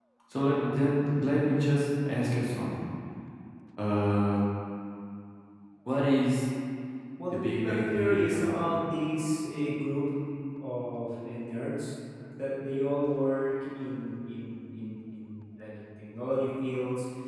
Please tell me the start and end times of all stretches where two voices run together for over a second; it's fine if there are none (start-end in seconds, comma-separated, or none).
7.3-8.7